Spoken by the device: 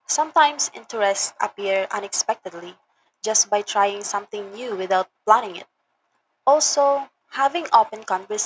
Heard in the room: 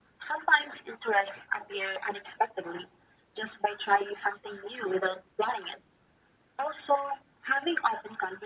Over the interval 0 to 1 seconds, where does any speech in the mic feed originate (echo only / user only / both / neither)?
echo only